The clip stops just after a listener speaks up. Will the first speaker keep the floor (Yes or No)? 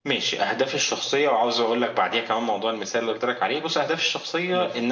Yes